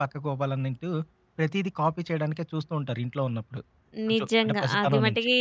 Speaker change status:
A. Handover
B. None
A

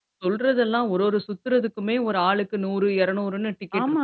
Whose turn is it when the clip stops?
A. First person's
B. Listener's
B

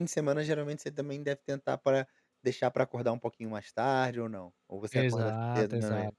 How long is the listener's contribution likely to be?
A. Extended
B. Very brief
A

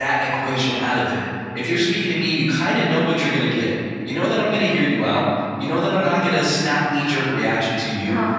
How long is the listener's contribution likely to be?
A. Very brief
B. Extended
A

